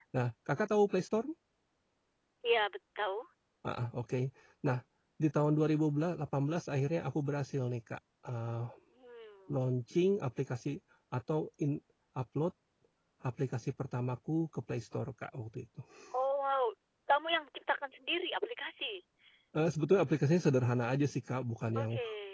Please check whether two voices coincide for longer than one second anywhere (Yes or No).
No